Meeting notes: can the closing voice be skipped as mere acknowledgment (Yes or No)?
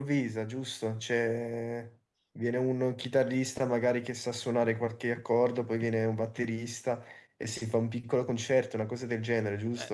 No